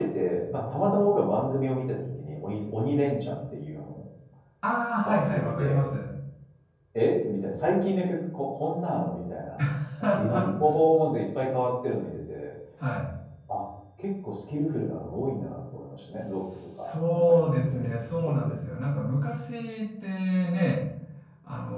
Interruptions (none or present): present